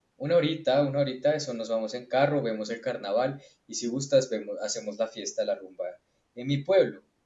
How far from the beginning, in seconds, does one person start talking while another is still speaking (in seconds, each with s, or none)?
none